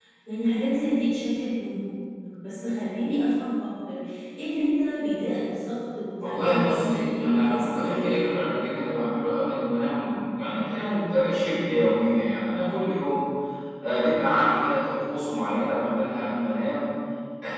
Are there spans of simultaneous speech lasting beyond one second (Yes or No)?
Yes